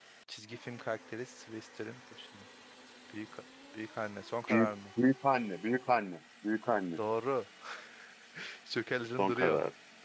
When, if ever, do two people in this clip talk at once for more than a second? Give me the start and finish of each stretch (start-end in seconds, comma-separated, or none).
none